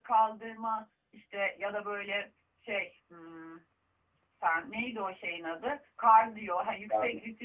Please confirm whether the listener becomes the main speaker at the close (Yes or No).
No